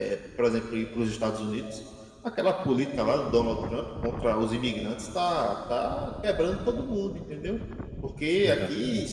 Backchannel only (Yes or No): Yes